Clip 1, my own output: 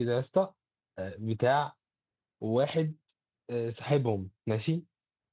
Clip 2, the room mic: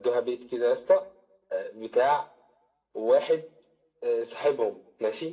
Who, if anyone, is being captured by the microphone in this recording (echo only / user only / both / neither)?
echo only